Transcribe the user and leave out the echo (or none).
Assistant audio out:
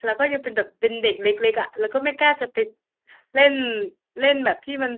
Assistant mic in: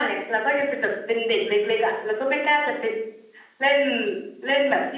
none